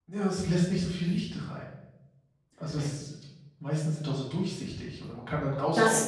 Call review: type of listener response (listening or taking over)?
taking over